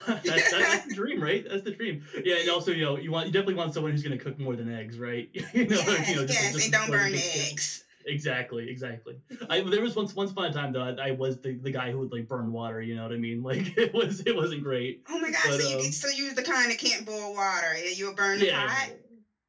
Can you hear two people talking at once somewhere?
Yes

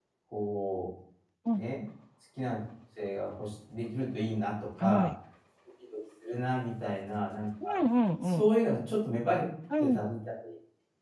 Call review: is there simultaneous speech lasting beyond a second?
No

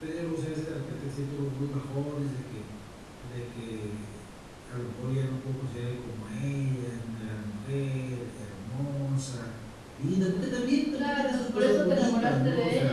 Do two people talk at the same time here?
Yes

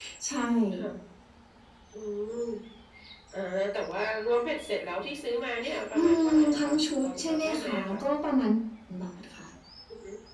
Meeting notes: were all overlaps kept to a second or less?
No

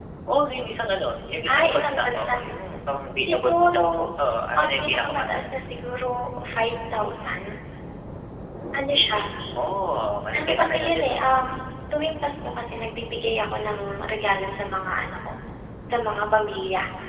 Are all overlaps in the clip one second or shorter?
No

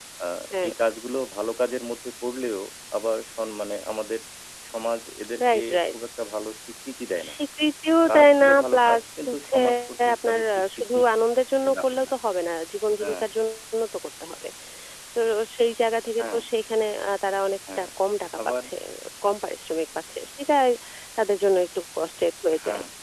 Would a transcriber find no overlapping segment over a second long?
No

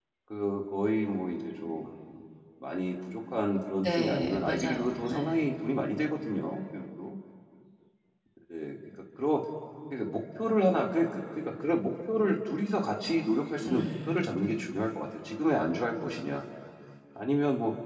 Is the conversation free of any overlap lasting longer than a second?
No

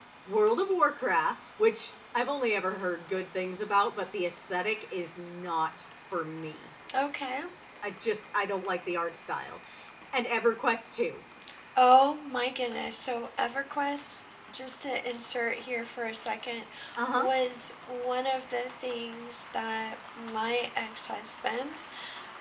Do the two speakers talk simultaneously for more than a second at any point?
No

